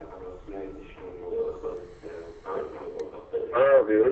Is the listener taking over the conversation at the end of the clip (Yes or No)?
Yes